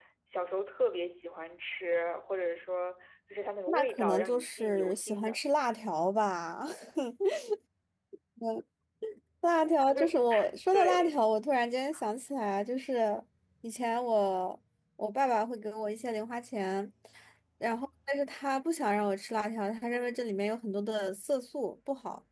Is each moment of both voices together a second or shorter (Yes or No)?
No